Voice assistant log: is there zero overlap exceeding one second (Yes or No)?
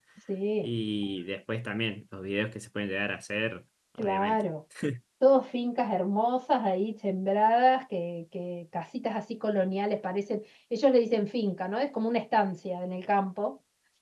Yes